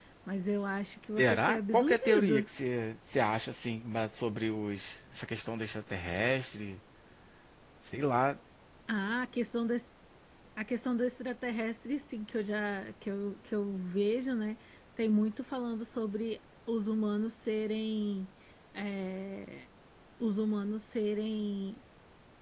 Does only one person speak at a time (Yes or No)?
No